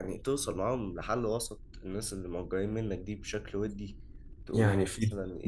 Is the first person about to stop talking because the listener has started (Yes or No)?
Yes